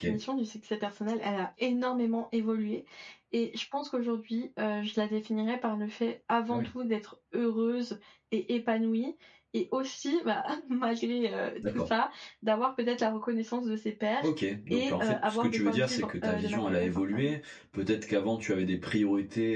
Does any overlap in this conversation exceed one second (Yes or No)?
Yes